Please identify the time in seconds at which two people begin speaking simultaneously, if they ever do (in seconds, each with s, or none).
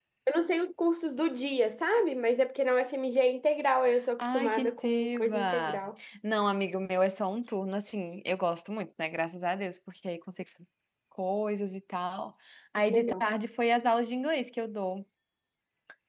4.2 s